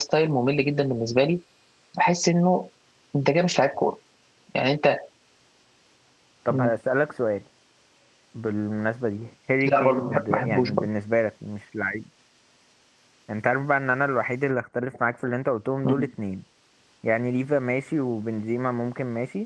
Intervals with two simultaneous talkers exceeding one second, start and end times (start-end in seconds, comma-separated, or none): 9.7-10.9